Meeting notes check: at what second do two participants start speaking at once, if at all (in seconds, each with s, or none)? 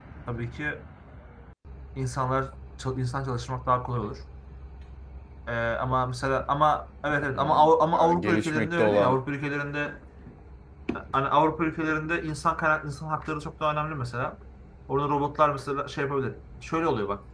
7.3 s